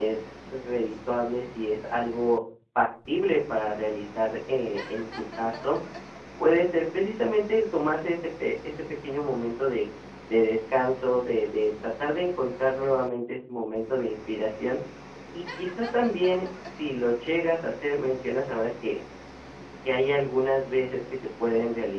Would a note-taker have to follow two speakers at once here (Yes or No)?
No